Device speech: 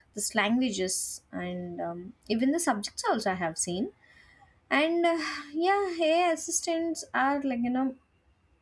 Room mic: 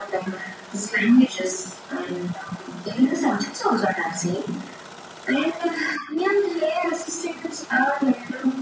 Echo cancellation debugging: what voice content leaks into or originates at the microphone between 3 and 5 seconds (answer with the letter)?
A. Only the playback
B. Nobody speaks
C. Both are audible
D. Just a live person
A